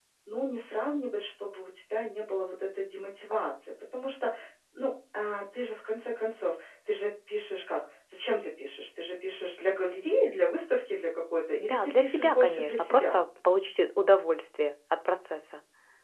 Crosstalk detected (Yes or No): Yes